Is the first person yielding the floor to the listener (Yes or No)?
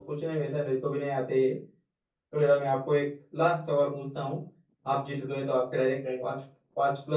No